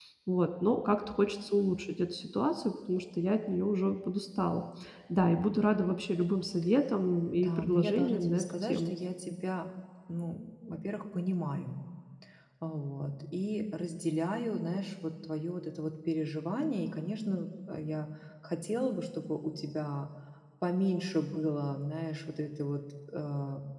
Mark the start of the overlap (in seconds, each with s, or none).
7.3 s